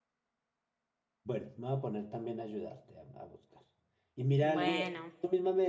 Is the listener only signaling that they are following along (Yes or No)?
Yes